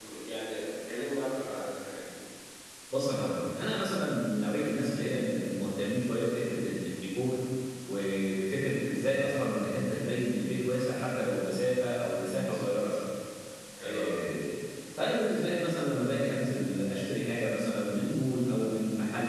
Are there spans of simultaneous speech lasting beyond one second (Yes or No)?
No